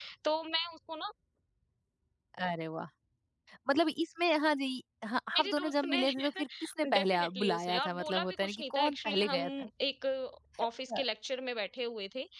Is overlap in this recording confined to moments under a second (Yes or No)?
No